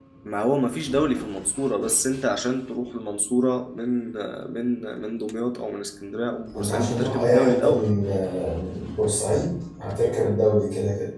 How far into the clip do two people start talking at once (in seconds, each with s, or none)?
6.5 s